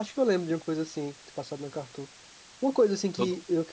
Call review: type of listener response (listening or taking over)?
listening